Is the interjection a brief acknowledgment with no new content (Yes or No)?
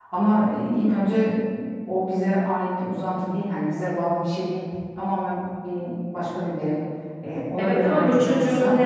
No